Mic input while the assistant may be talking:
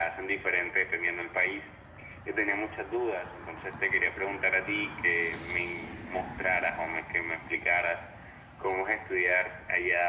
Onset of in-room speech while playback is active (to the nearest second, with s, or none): none